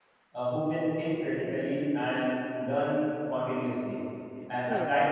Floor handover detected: No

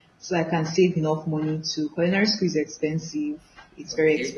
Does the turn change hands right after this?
No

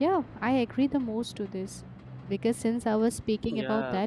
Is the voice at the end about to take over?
No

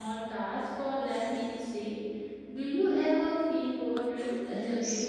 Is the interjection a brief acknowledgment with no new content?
No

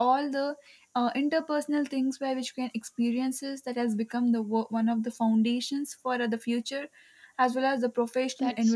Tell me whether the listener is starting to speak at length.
Yes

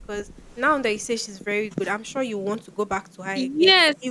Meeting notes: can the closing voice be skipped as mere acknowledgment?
No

